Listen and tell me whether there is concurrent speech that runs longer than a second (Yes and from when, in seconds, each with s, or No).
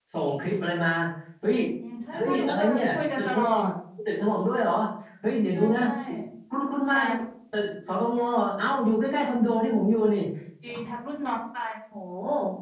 Yes, from 2.1 s